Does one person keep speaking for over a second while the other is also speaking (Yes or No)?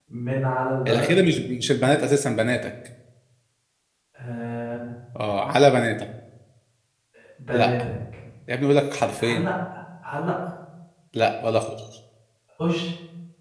No